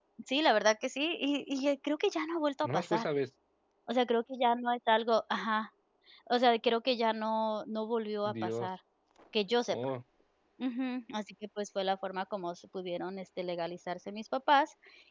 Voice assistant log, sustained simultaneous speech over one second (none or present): none